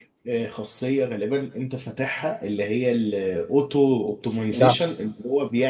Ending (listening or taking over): listening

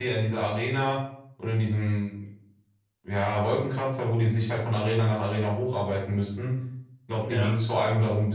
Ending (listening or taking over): listening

